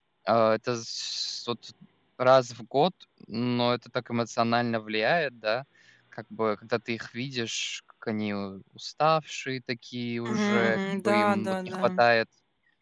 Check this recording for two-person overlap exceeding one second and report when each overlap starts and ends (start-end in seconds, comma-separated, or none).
10.3-11.8